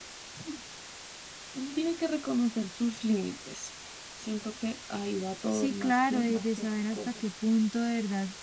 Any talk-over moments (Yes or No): Yes